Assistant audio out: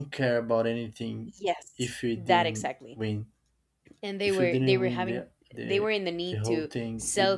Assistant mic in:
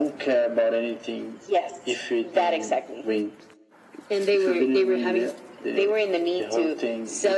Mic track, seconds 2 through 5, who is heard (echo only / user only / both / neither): echo only